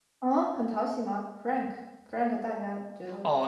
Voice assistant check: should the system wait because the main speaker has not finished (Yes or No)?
No